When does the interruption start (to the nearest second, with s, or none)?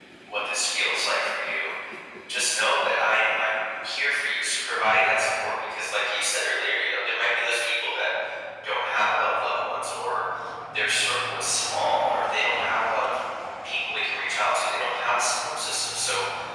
none